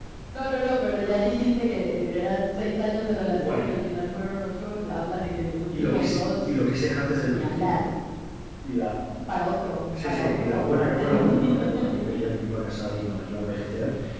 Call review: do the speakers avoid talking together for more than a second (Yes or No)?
No